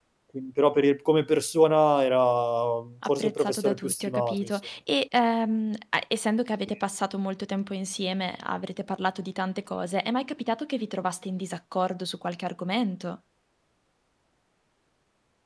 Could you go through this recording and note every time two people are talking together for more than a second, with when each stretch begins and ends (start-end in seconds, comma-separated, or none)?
3.1-4.6